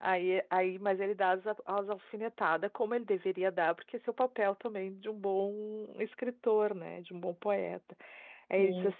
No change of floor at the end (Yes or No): Yes